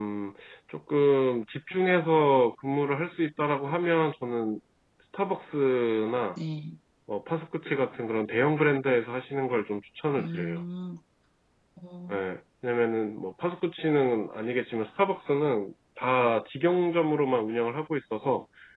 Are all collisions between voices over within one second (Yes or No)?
Yes